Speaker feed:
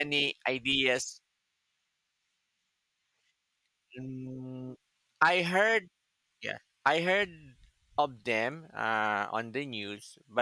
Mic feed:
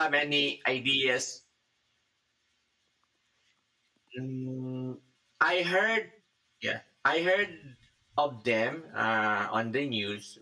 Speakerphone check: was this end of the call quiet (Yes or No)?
Yes